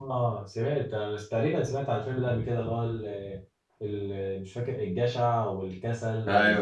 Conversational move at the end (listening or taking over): taking over